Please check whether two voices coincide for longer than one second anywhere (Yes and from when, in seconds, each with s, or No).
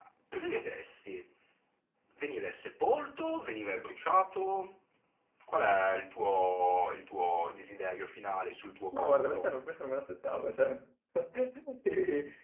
No